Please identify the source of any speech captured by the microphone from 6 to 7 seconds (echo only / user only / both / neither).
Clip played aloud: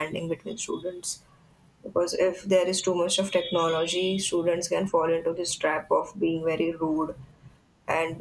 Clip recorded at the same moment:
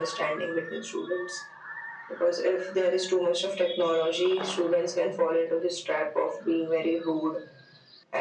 echo only